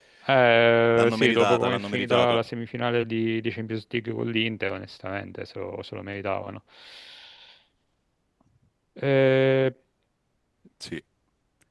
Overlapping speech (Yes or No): Yes